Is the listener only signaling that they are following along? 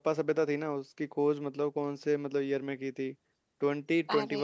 Yes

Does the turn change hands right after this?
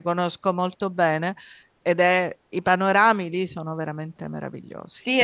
Yes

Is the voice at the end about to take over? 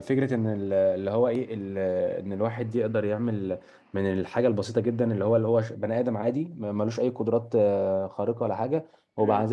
No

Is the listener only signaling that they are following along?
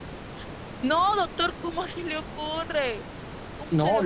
No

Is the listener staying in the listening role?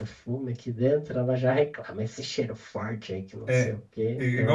No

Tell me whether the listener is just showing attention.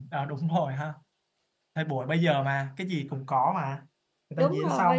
Yes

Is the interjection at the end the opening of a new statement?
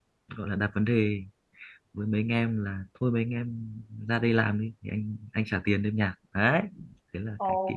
Yes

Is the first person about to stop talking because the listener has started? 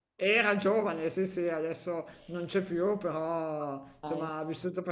No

